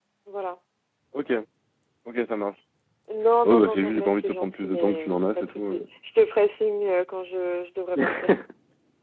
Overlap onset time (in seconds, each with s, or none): 3.4 s